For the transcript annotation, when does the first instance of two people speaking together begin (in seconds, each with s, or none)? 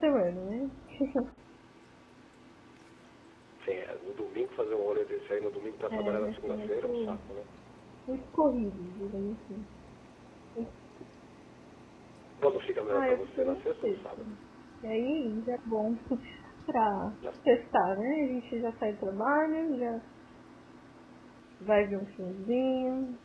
5.9 s